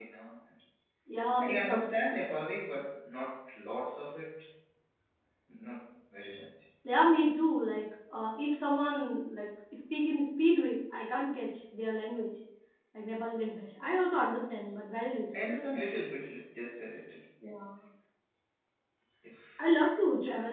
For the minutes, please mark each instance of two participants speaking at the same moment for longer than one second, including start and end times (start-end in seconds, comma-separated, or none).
none